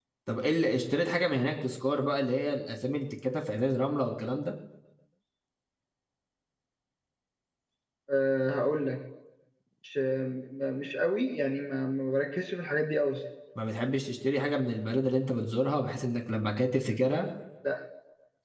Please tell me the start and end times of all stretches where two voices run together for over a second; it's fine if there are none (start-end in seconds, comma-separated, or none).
none